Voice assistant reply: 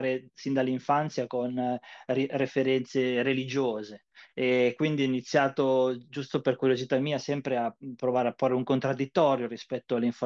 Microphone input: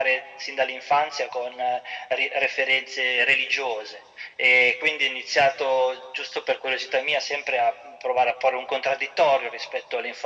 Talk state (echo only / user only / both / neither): echo only